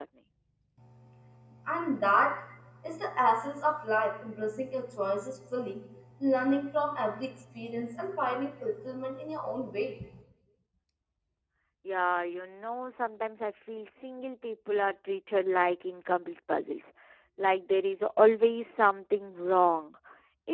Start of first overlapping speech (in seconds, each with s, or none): none